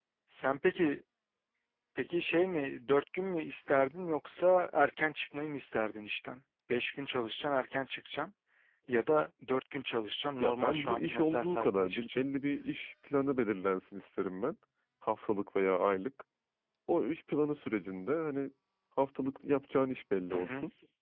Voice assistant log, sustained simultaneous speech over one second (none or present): present